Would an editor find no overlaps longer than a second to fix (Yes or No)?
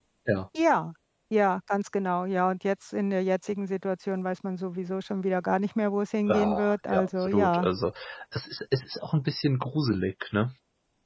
No